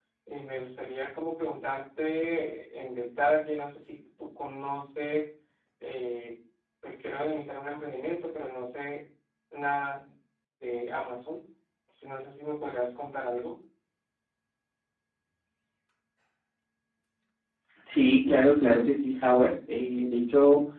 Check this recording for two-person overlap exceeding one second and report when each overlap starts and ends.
none

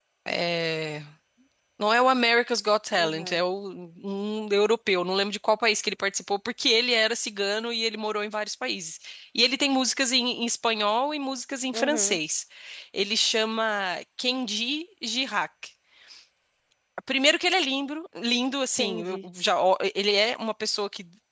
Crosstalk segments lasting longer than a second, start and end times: none

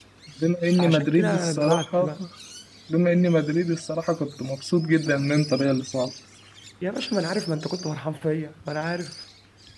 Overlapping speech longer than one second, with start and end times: 0.7-2.2

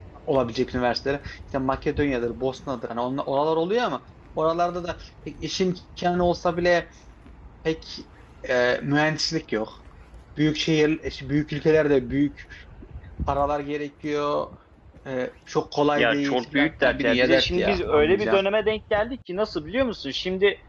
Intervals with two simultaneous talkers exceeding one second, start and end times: 16.0-18.4

